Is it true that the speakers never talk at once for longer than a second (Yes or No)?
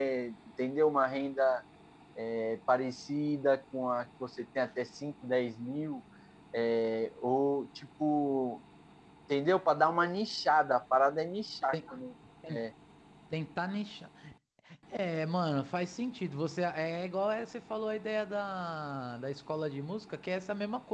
Yes